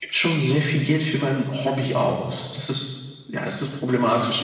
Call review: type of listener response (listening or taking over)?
taking over